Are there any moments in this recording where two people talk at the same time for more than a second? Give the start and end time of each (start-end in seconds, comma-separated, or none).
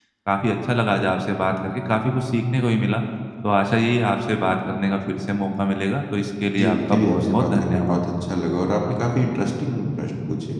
6.6-8.0